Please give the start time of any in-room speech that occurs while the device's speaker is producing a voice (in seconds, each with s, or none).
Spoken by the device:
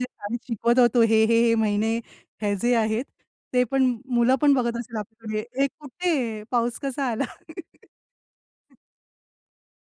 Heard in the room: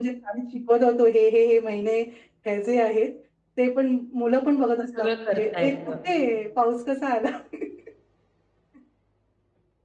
4.9 s